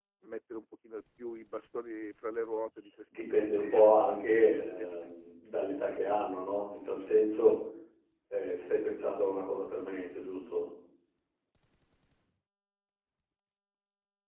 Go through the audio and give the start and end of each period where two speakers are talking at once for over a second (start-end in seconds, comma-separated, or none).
3.2-5.1